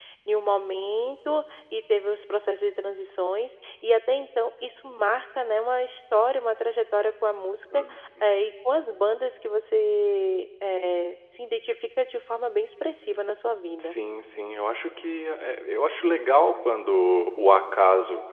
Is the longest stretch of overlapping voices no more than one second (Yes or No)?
Yes